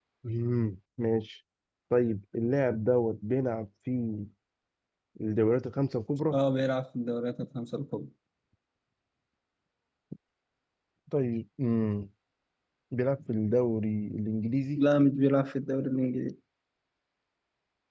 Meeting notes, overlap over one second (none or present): none